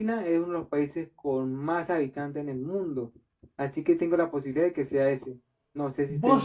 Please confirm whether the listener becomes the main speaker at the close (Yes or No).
Yes